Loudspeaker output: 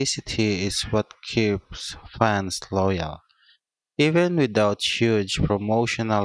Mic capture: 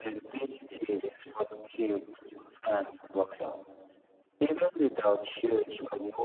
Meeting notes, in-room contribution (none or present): none